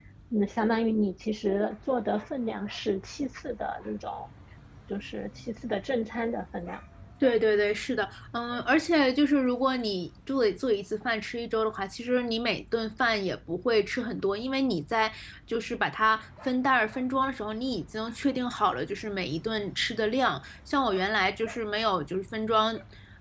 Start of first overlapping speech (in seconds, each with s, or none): none